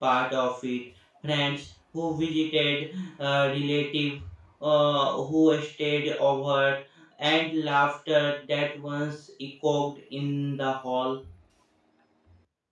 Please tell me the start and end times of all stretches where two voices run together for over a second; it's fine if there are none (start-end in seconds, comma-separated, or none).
none